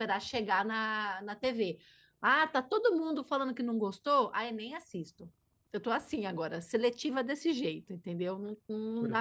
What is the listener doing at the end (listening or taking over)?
taking over